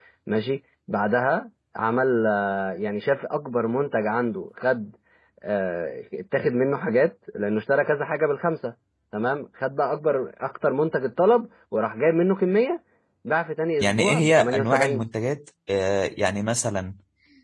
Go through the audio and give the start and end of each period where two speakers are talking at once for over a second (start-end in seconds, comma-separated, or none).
13.8-15.0